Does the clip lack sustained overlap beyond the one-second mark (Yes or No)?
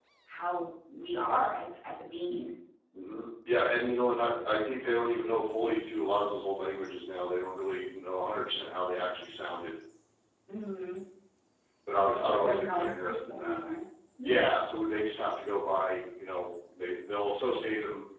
No